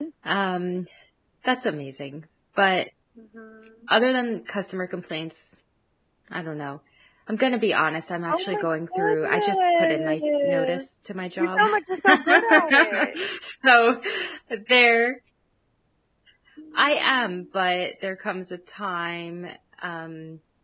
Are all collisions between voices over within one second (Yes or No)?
No